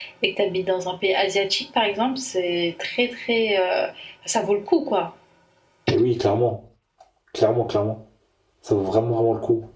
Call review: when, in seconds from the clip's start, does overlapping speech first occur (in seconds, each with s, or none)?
none